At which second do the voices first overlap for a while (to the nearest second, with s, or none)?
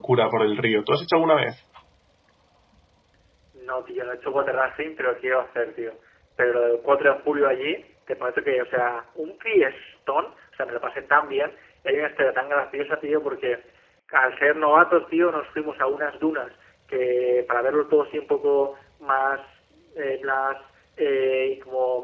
none